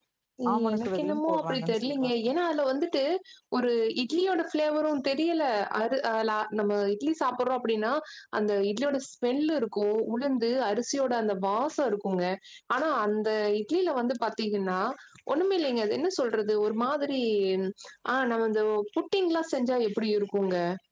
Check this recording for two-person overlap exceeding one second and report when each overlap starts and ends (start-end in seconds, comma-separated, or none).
0.7-2.1